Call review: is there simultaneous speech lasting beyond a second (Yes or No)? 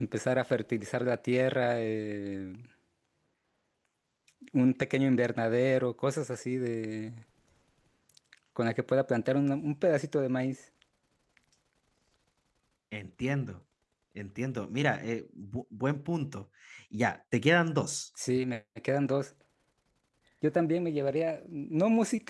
No